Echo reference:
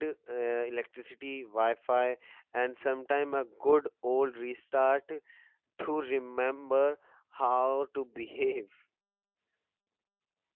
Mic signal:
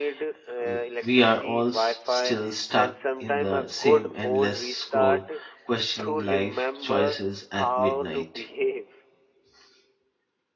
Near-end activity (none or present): present